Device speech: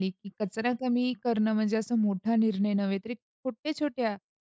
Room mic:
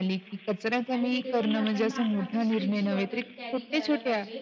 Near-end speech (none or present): present